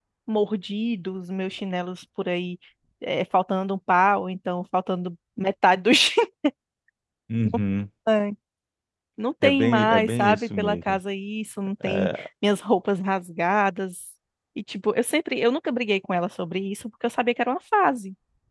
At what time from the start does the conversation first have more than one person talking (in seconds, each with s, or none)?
9.4 s